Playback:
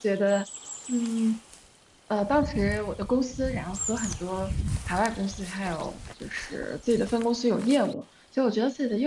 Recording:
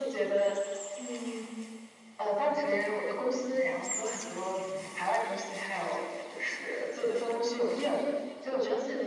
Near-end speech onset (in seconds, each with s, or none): none